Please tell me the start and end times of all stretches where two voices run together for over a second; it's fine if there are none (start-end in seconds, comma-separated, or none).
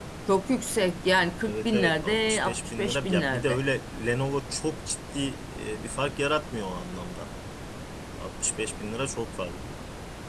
1.4-3.6